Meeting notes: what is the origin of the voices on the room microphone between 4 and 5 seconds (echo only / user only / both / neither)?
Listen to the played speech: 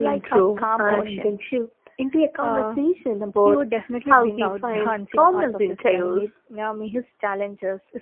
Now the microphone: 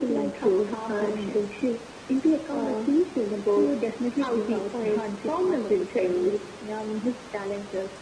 echo only